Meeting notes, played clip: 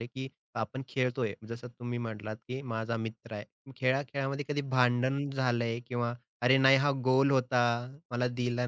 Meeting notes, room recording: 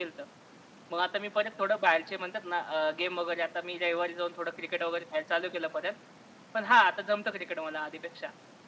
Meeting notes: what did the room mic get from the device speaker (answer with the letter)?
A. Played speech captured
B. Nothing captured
B